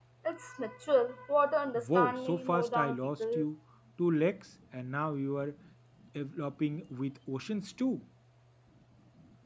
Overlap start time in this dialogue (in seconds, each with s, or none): 1.8 s